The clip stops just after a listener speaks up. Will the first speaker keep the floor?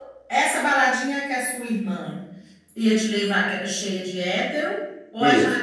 No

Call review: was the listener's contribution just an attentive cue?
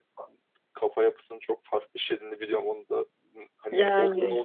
Yes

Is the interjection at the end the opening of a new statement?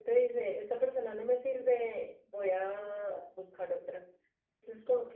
No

